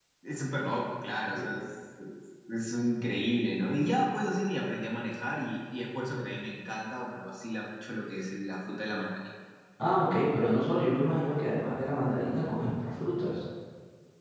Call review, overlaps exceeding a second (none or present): none